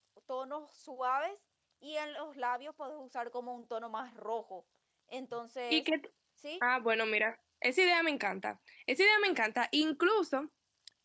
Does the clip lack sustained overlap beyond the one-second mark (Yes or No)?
Yes